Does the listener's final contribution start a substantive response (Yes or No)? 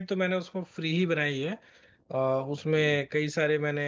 No